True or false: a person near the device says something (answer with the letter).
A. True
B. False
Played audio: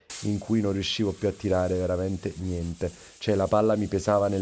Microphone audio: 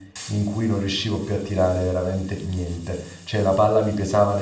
B